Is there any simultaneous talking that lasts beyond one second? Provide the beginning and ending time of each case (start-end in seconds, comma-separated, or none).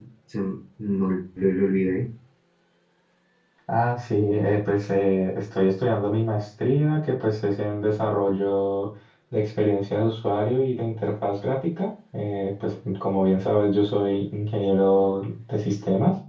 none